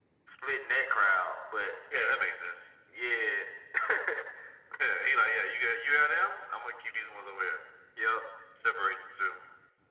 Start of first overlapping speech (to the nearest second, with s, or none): none